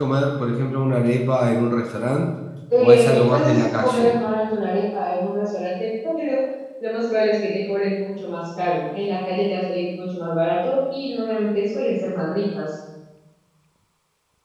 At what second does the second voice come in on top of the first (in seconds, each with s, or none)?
2.8 s